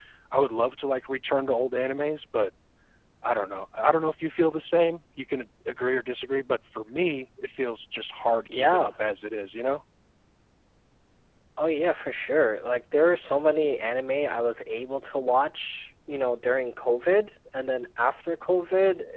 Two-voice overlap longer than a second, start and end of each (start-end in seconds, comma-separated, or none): none